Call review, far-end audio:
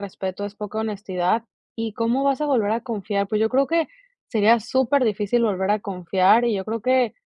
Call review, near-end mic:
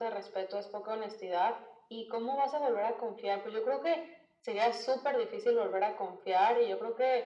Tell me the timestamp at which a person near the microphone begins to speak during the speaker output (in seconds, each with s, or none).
none